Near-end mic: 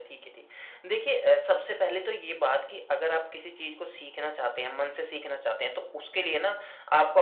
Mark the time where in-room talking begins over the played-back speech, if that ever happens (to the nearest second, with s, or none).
none